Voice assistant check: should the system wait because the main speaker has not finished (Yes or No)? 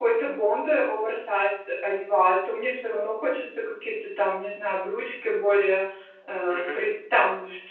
Yes